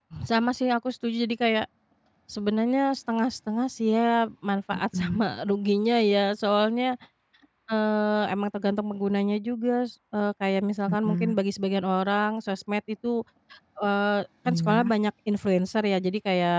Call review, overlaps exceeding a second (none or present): none